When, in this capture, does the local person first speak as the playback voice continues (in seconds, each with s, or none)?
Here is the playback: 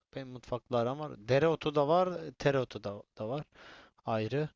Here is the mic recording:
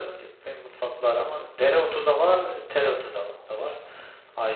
none